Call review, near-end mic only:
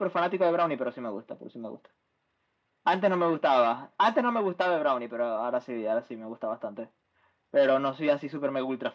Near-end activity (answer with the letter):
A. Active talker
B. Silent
B